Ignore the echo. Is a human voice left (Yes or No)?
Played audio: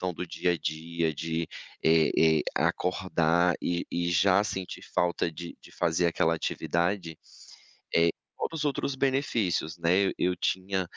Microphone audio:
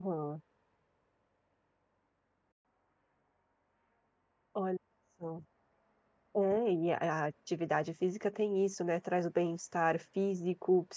Yes